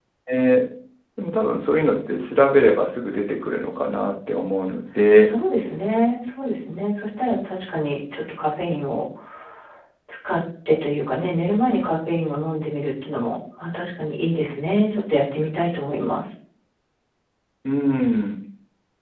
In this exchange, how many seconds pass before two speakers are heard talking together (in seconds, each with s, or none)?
none